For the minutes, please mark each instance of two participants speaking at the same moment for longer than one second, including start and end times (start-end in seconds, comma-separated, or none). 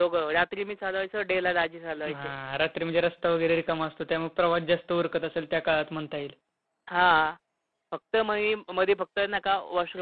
none